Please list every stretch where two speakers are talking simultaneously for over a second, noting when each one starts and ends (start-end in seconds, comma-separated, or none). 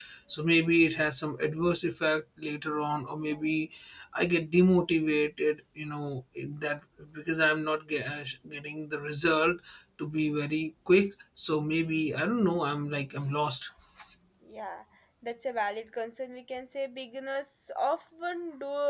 none